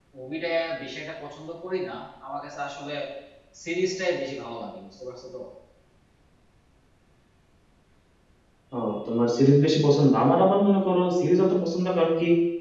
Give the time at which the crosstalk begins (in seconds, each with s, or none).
none